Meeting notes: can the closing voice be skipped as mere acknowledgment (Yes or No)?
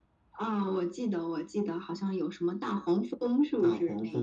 No